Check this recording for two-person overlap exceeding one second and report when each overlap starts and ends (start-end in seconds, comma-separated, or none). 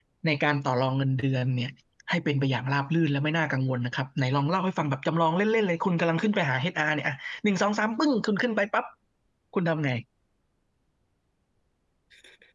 none